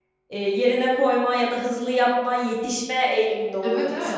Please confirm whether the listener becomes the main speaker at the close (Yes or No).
Yes